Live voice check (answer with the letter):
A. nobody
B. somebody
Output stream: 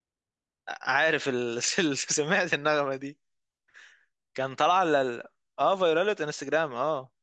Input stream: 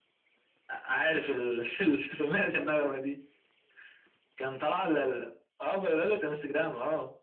B